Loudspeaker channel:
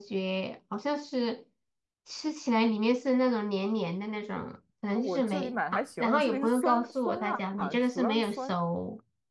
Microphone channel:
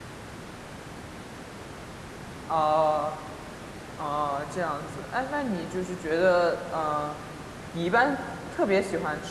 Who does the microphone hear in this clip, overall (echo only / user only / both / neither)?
user only